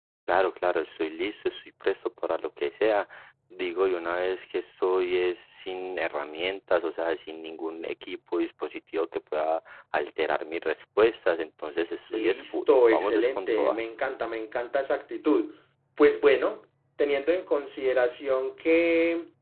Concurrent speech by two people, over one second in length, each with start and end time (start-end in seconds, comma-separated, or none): 12.1-13.8